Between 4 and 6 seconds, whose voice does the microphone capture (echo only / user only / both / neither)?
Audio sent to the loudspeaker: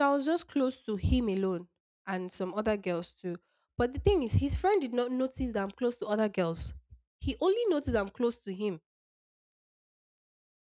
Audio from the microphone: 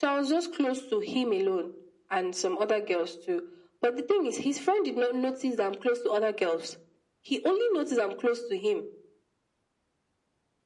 echo only